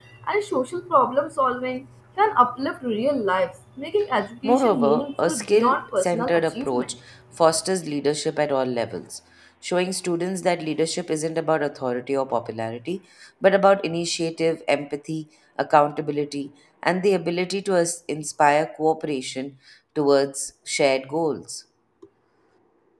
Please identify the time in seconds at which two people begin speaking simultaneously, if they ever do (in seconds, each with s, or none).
4.4 s